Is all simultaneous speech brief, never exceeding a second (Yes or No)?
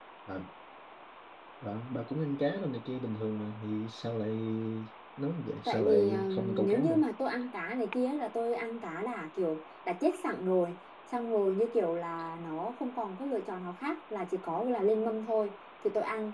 No